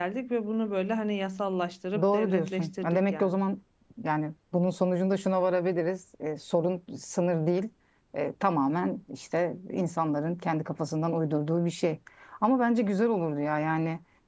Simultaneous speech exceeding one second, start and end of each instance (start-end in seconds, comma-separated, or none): 2.0-3.4